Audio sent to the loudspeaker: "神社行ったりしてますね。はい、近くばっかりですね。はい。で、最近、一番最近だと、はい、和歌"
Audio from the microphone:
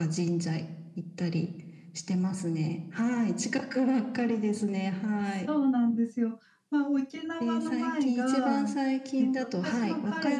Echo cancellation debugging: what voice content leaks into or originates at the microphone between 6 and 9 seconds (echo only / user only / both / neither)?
both